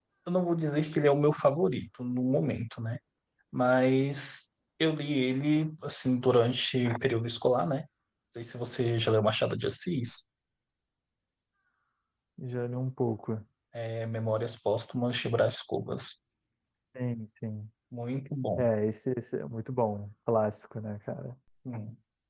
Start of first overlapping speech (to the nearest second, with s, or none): none